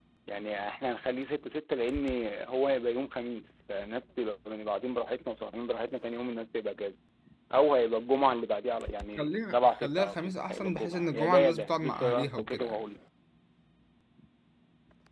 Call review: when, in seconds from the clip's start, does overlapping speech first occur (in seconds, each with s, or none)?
9.2 s